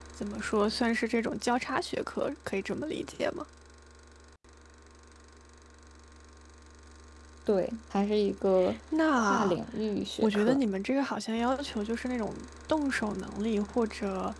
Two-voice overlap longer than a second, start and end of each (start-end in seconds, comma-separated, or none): none